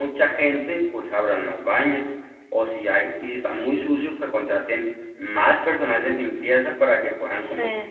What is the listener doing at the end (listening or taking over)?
listening